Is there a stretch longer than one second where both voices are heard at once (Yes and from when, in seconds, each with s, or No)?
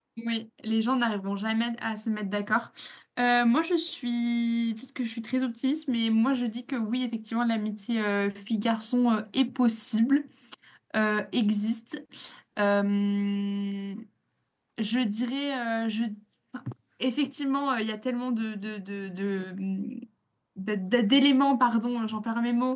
No